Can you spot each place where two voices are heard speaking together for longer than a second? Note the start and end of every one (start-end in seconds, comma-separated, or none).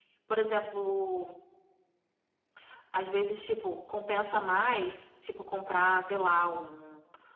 none